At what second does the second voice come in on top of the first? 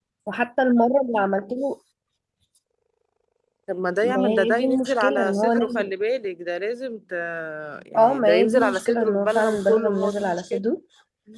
4.0 s

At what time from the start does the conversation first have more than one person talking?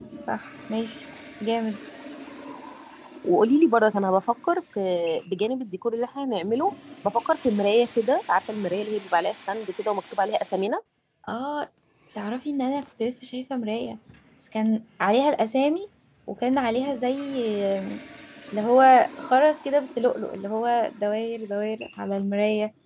none

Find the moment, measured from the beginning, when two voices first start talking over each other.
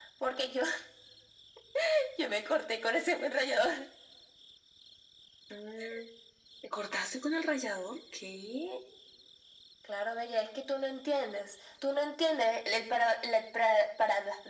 none

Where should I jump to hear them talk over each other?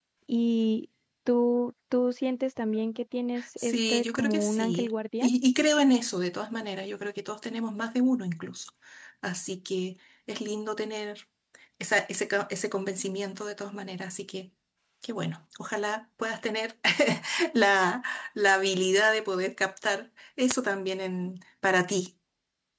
3.4 s

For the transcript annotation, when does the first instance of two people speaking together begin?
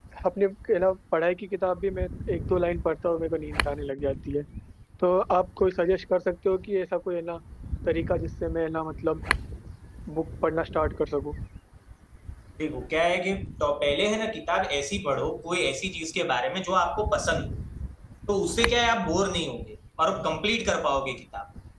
none

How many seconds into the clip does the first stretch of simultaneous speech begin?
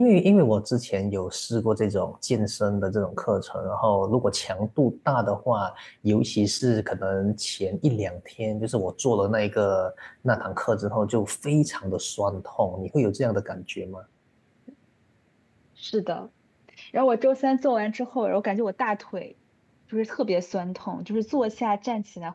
none

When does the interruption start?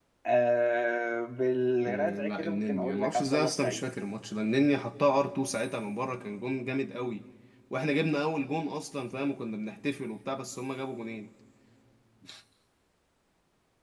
1.9 s

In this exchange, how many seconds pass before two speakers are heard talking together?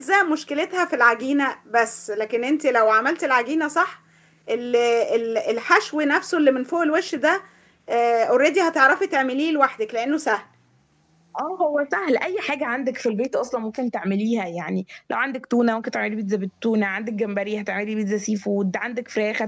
none

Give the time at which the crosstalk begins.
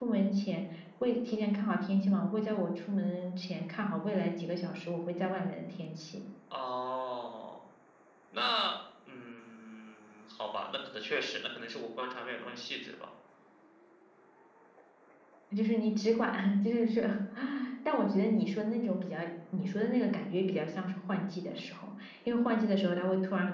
none

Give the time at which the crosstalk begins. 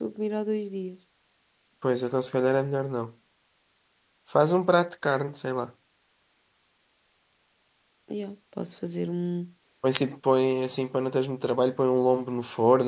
none

